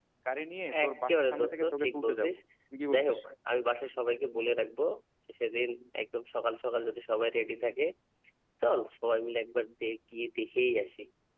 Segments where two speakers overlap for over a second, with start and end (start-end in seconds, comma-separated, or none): 0.8-2.3